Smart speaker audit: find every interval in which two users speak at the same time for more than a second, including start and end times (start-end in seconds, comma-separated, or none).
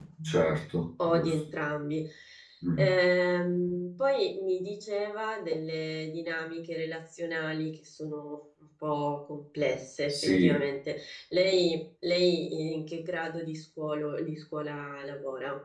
none